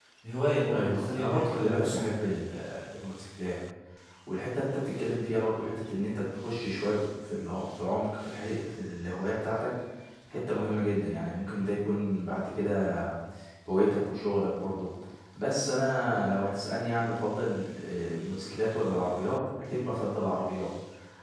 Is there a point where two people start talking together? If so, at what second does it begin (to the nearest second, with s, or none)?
1 s